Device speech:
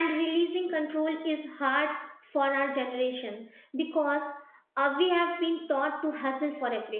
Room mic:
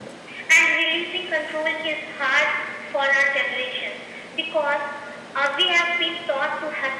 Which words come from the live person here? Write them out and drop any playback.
none

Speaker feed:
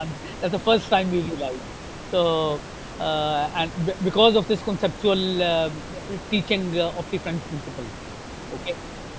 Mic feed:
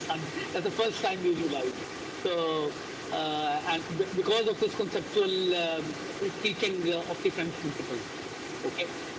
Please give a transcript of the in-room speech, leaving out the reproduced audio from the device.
none

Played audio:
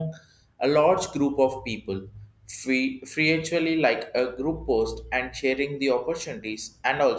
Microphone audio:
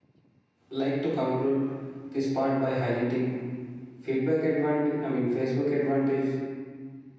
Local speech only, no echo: like to conclude this part by highlighting feedback advantage, I mean, Facebook advantage

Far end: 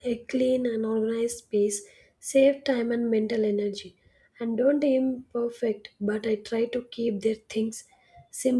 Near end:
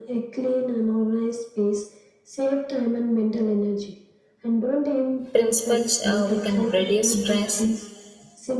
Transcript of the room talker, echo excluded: principles, uh, we can reduce stress,

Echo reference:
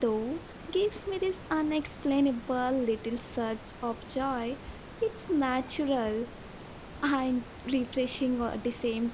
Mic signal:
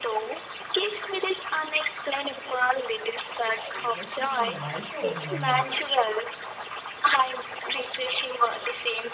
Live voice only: uh, it makes you feel lighter in many ways.

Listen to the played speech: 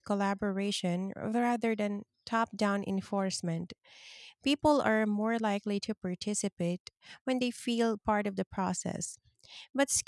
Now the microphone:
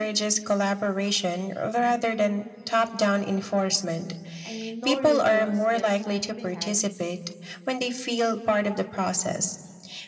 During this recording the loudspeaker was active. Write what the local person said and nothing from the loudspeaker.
I mean, no regions gets left behind.

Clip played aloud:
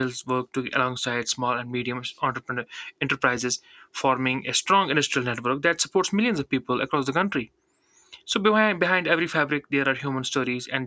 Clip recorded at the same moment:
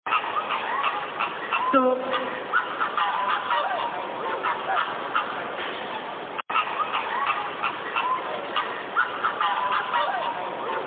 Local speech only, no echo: so

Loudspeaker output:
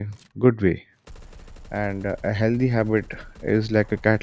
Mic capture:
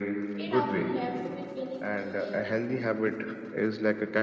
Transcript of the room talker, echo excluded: it often left me feeling tired

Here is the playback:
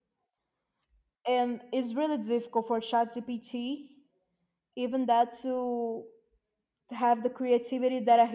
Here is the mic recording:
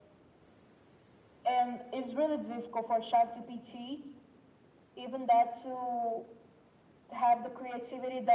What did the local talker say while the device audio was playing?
none

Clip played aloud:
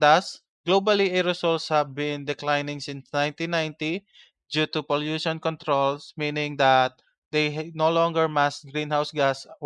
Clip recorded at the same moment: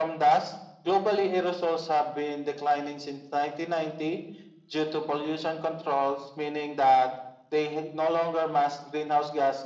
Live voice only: none

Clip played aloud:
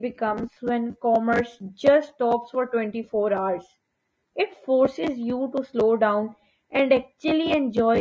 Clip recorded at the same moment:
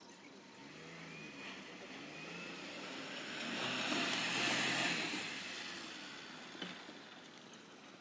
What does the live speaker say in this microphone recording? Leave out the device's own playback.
none

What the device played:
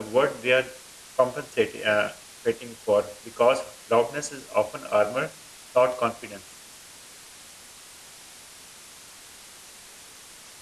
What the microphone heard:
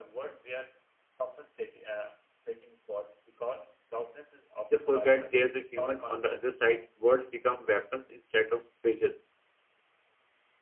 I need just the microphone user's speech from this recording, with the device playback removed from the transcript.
They forget there's a human on the other side. Words become weapons instead of bridges.

